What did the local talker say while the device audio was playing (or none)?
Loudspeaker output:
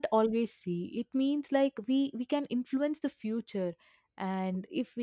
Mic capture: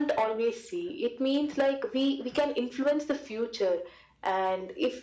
none